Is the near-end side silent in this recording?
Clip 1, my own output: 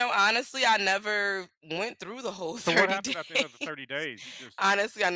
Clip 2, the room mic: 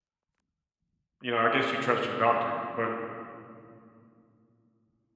No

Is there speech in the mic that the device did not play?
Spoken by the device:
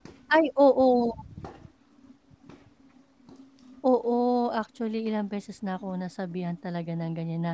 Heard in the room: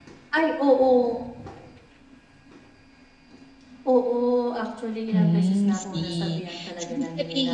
Yes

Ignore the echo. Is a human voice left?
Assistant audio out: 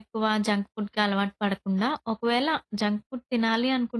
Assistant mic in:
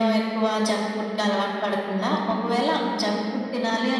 No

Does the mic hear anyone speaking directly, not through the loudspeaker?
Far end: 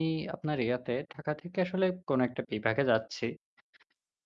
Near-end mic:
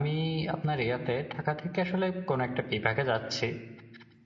No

